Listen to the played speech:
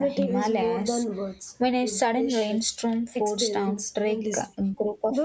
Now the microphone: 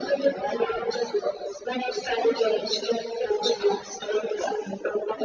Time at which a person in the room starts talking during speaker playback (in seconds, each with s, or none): none